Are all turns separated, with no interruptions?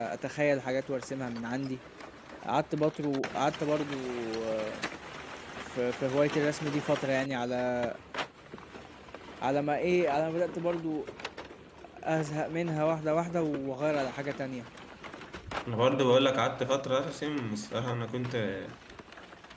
Yes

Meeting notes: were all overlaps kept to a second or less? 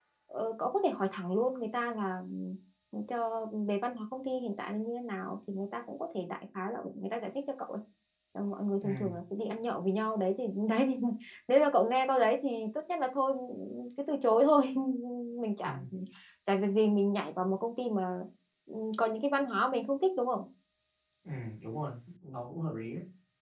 Yes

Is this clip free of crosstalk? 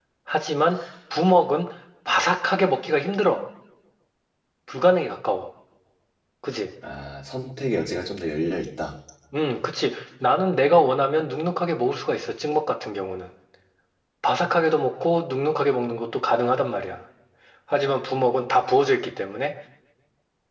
Yes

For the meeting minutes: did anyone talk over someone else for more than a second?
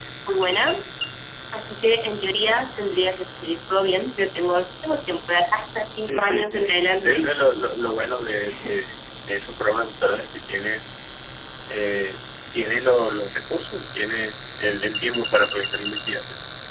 Yes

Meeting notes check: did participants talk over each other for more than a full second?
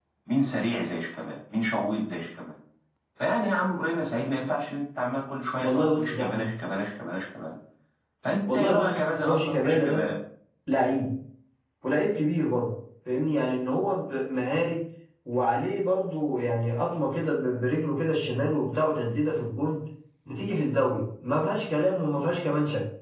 Yes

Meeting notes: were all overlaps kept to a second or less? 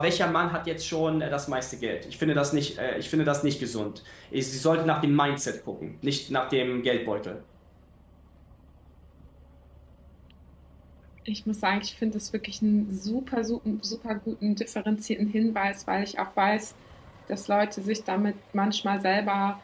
Yes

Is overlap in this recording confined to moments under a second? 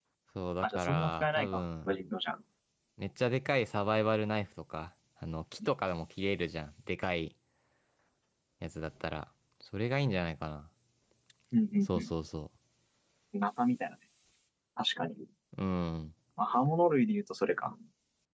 No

